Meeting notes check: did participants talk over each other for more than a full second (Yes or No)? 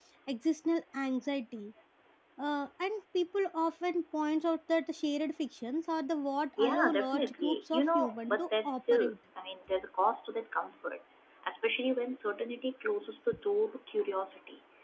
Yes